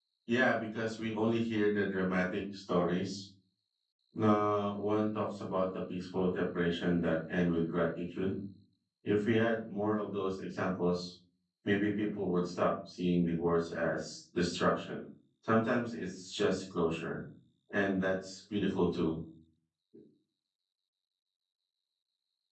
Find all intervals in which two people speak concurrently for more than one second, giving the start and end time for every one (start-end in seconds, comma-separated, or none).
none